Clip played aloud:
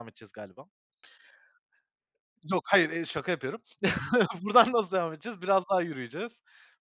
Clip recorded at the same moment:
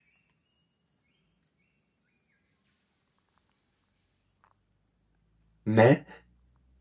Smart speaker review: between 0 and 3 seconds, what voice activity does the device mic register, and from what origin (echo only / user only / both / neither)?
neither